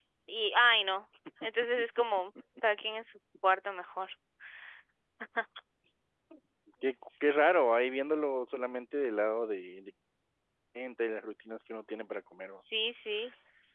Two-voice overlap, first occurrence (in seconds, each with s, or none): none